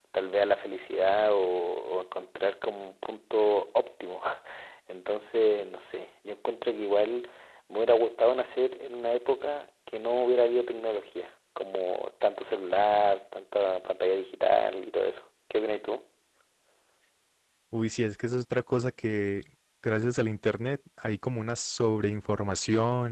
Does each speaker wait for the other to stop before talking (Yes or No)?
Yes